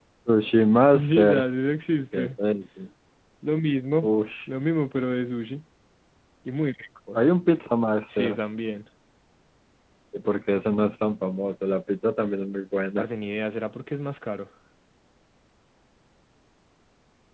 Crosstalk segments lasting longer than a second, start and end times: none

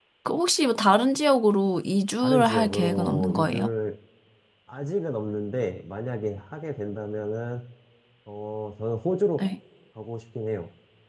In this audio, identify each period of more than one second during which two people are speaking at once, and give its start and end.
2.2-3.7

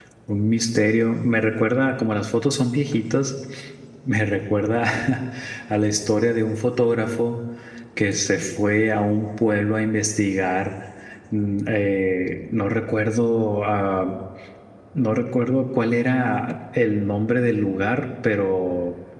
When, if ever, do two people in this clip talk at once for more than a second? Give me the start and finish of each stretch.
none

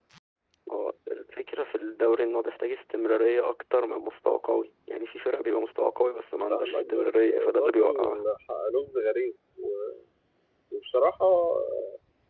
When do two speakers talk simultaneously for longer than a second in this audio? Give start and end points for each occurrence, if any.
6.5-8.2

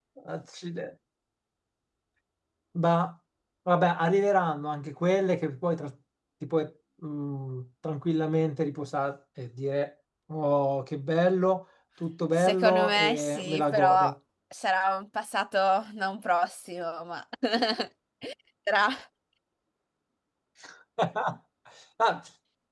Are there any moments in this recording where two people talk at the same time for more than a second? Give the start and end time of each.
12.4-14.1

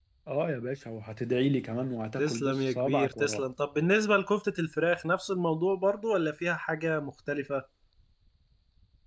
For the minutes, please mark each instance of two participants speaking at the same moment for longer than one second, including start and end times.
2.2-3.4

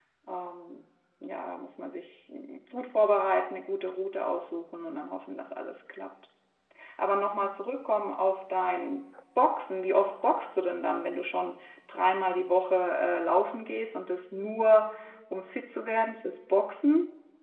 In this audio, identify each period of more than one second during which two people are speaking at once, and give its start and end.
none

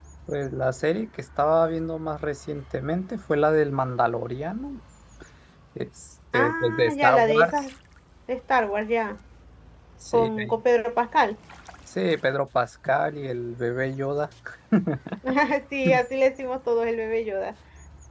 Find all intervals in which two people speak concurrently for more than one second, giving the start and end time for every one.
6.3-7.6

